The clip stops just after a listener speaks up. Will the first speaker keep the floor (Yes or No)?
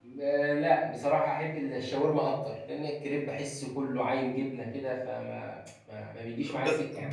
No